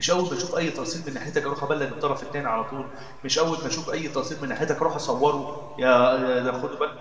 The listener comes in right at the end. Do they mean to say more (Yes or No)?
No